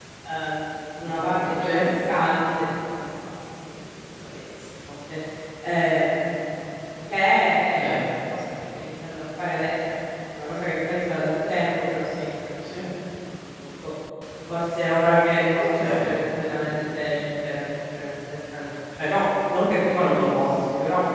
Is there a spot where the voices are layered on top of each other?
Yes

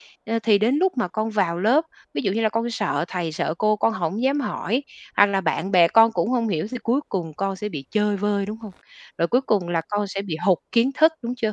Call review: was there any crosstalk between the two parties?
No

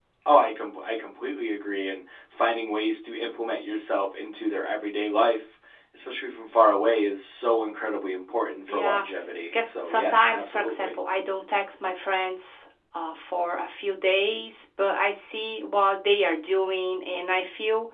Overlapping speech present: Yes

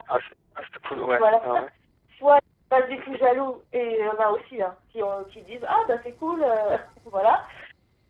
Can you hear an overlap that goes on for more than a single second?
No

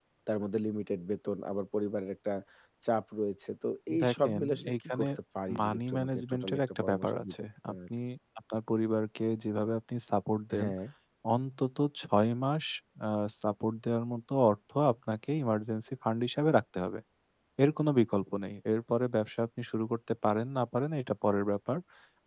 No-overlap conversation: No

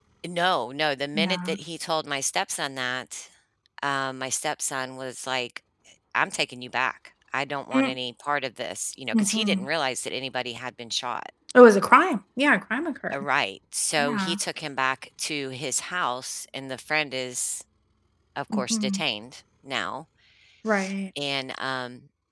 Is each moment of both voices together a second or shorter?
Yes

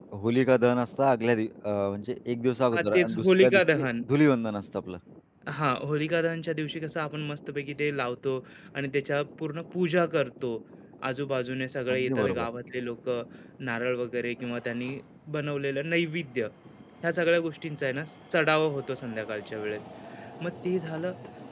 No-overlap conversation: No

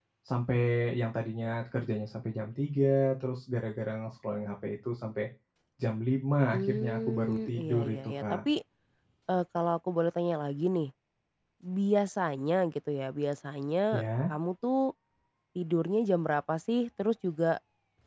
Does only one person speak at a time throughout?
No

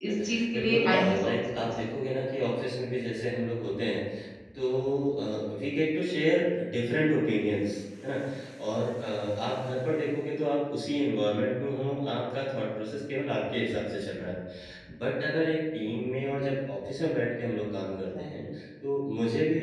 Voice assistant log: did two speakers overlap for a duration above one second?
Yes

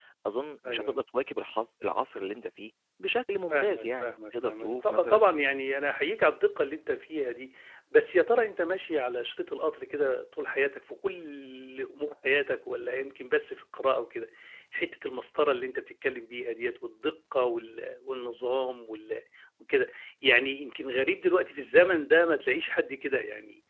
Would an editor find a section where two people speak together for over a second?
Yes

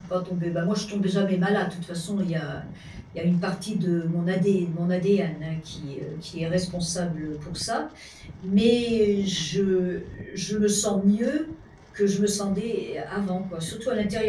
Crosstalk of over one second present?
No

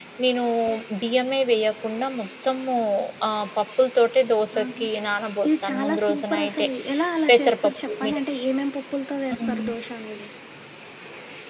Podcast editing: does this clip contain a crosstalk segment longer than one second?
Yes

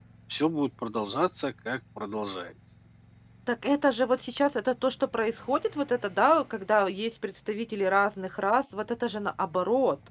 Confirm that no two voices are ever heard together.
Yes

